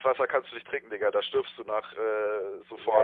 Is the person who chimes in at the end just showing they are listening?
No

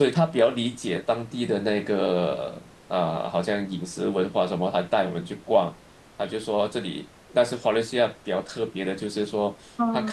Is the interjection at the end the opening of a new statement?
No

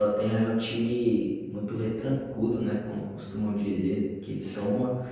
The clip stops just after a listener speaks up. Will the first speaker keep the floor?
Yes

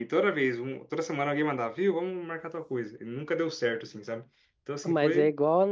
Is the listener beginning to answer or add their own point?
Yes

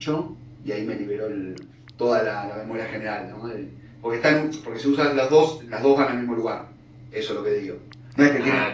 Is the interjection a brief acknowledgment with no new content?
Yes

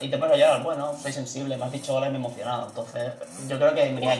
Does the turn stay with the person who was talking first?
No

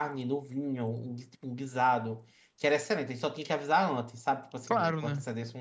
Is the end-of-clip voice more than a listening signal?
No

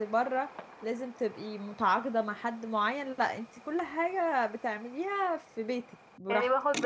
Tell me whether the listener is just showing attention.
No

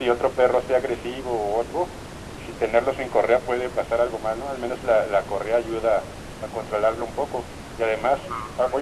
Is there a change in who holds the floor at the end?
Yes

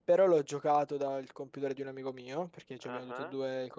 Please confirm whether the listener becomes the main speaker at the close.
No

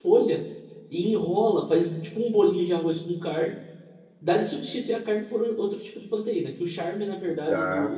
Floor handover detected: No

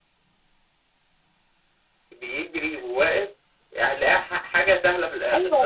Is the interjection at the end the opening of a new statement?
Yes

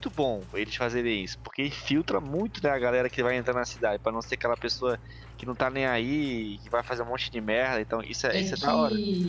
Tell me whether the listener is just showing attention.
No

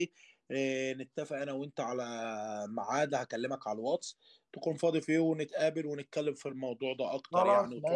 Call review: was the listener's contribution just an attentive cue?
No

